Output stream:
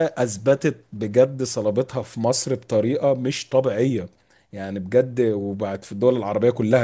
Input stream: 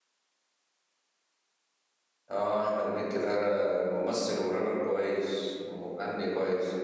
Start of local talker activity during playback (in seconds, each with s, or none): 2.3 s